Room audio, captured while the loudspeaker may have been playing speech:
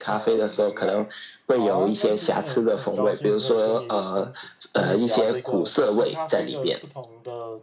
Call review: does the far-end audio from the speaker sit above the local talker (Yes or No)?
Yes